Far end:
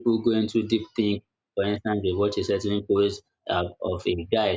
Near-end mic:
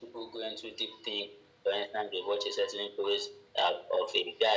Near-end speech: none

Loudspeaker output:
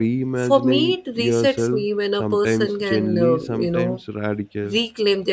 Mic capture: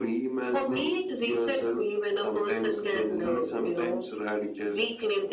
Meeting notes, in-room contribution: none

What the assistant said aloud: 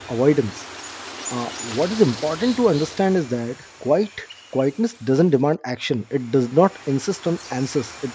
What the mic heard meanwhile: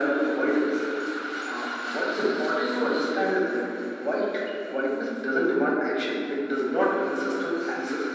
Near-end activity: none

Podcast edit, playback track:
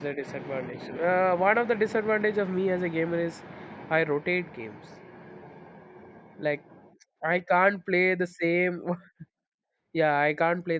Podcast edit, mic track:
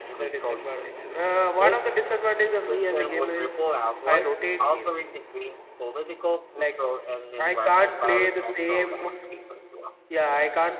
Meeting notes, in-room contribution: present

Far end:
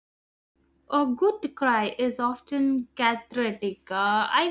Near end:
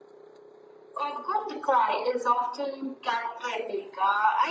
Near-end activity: none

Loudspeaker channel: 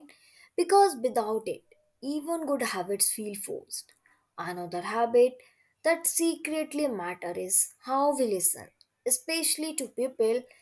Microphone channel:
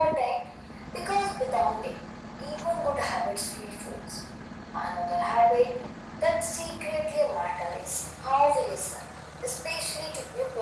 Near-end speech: none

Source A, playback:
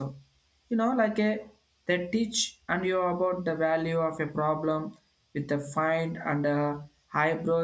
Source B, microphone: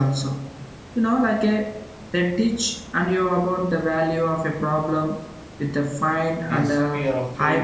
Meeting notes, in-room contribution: present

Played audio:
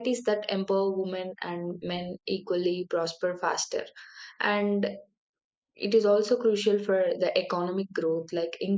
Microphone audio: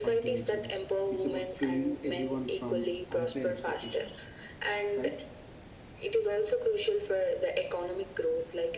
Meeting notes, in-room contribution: present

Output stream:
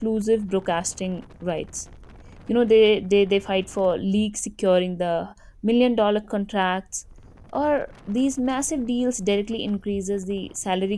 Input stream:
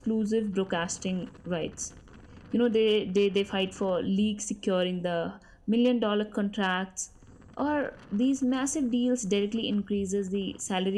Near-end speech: none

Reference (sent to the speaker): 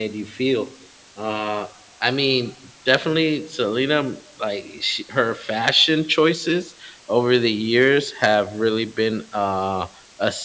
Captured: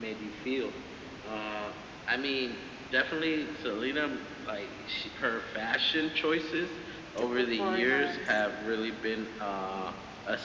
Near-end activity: present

